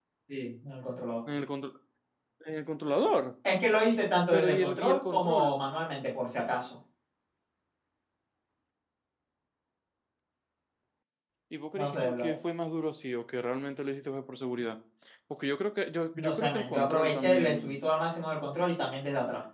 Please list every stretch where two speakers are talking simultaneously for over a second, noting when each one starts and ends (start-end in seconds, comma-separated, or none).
4.3-5.6, 16.1-17.8